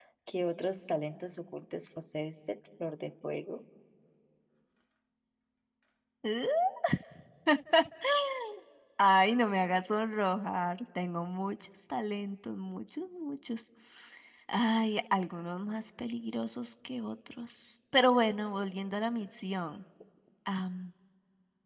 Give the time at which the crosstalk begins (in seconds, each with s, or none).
none